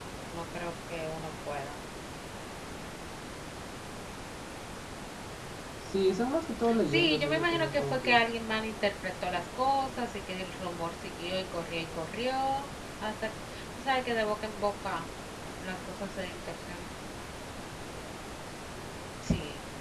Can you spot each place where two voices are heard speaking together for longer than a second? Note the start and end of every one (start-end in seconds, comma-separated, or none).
6.8-8.2